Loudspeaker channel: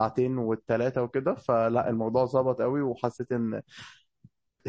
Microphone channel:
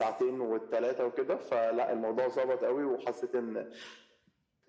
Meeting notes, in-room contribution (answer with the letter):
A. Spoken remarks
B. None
B